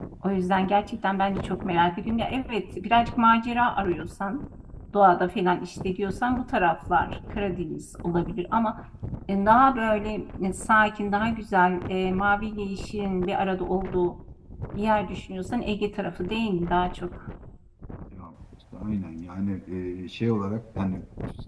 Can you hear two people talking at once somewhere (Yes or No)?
No